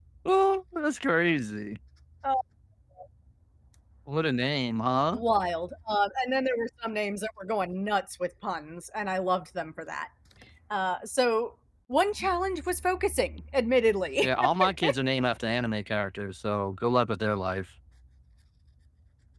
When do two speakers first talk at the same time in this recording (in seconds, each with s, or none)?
none